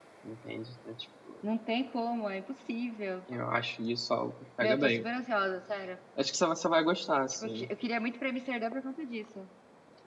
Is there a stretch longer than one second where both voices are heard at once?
No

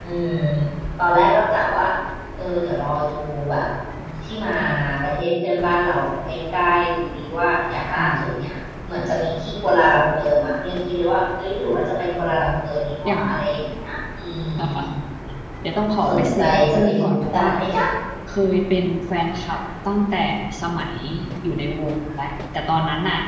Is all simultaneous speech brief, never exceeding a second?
No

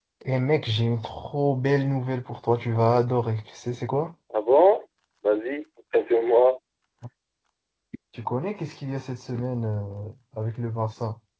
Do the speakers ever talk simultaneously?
No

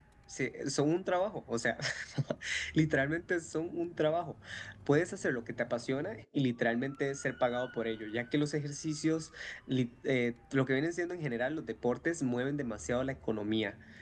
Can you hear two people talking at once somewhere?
No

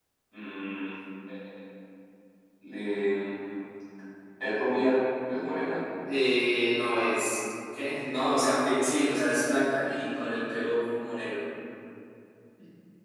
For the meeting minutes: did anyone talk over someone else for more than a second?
No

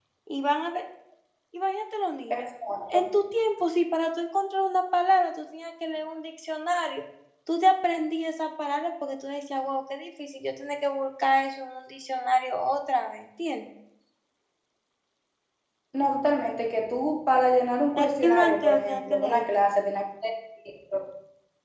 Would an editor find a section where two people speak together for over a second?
Yes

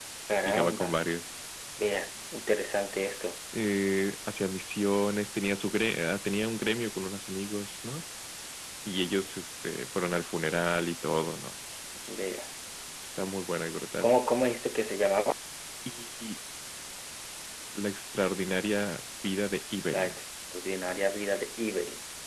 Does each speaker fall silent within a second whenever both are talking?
Yes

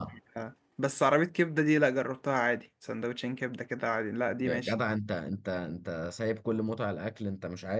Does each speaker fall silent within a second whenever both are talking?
Yes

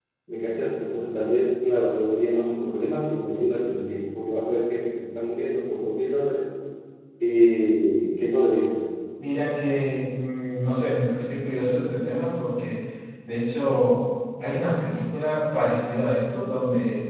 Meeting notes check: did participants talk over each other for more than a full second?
No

